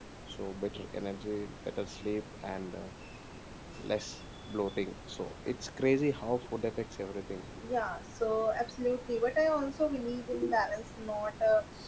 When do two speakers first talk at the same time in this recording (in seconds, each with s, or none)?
none